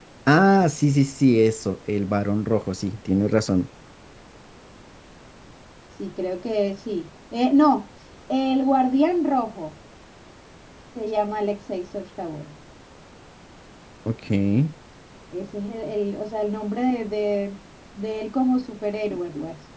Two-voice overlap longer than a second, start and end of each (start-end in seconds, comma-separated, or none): none